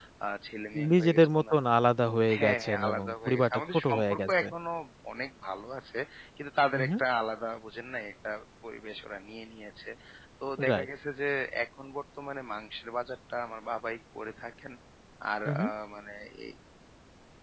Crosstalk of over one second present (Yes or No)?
Yes